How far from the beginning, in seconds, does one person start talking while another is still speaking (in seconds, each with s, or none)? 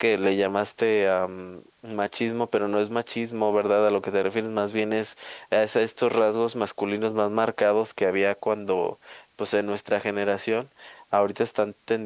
none